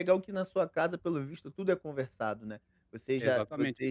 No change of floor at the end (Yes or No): No